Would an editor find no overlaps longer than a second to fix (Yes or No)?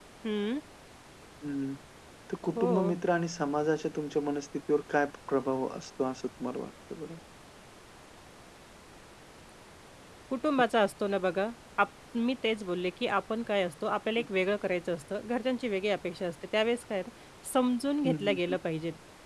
Yes